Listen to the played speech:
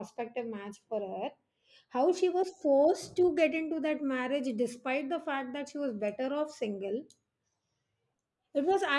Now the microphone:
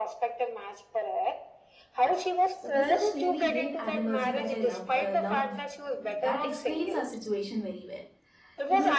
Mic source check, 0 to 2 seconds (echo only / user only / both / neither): echo only